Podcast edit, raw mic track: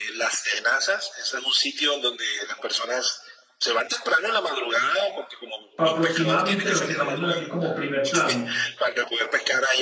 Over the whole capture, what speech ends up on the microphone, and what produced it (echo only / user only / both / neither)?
both